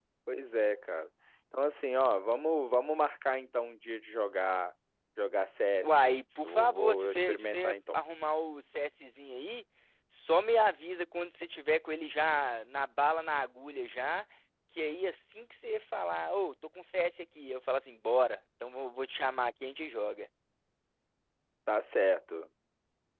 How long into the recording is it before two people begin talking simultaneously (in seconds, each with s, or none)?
5.8 s